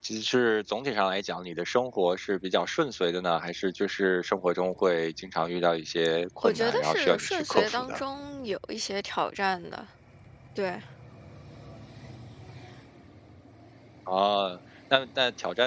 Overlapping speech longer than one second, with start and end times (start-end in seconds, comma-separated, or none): 6.4-8.0